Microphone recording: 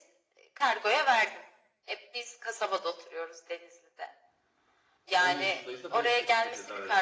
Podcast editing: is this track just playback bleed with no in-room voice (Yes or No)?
No